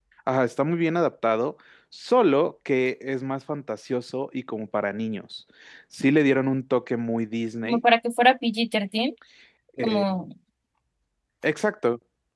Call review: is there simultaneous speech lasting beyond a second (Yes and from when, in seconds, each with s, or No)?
No